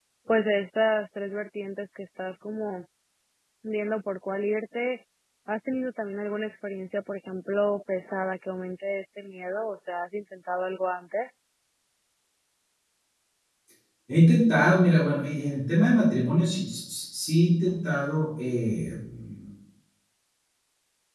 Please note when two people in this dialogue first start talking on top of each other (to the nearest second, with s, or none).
none